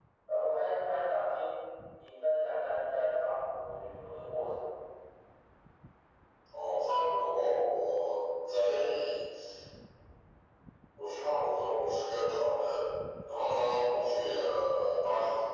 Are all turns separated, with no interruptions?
Yes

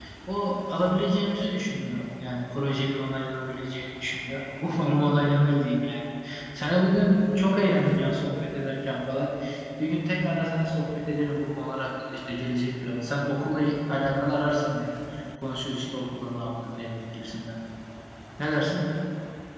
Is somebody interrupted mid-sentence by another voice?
No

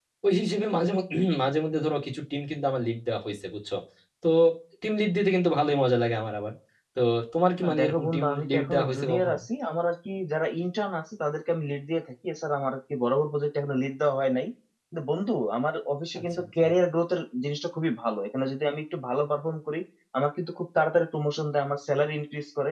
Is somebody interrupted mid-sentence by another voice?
Yes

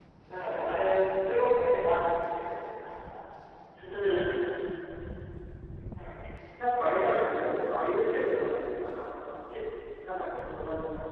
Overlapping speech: No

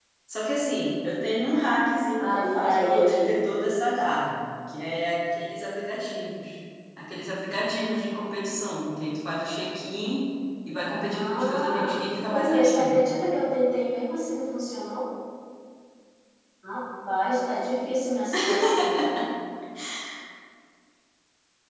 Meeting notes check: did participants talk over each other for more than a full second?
Yes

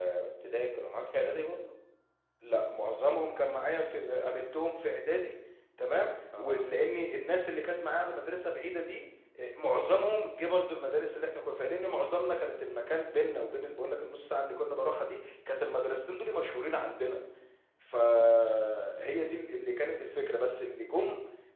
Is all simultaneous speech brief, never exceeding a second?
Yes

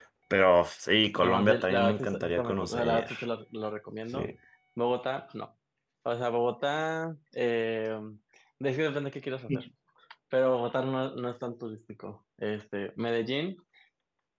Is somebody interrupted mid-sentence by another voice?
Yes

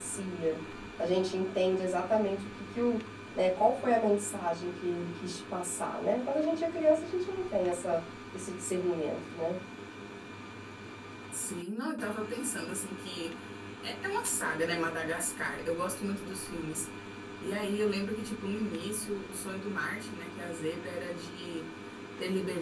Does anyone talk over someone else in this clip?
No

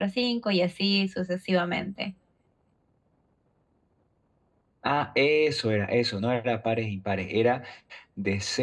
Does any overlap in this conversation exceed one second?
No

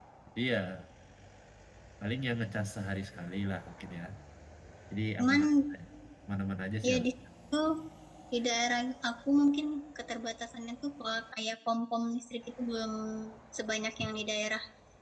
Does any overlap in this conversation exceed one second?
No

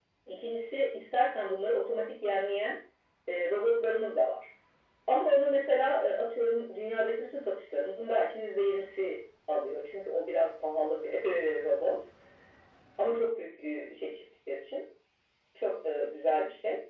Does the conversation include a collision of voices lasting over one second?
No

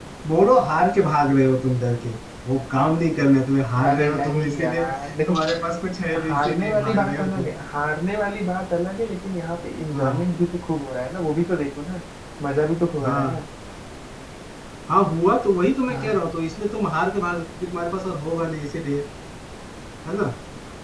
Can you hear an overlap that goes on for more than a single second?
Yes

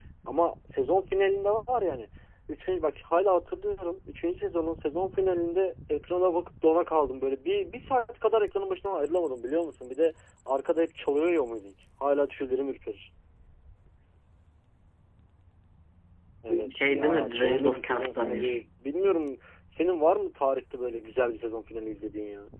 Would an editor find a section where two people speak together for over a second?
Yes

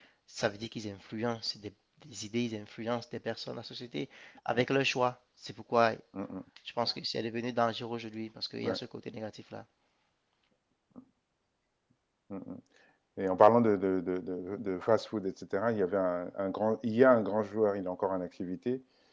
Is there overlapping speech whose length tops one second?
No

